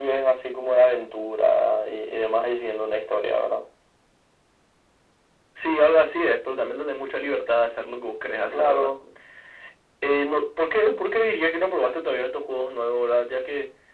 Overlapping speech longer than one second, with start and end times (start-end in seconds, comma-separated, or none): none